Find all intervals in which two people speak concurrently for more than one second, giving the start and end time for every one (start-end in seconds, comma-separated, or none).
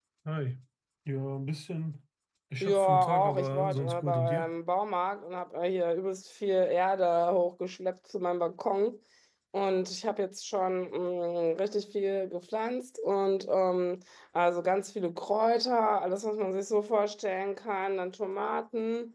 2.6-4.5